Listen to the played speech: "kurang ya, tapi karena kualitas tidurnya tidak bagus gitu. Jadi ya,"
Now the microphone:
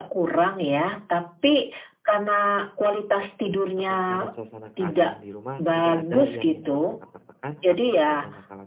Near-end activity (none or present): present